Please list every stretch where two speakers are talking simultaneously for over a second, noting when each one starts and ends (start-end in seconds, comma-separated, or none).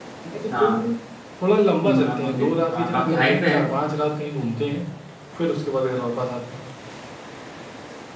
1.8-3.6